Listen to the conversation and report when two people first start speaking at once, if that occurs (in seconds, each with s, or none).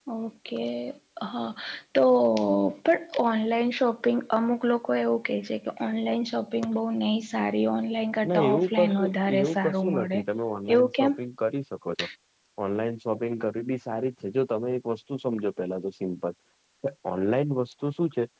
8.3 s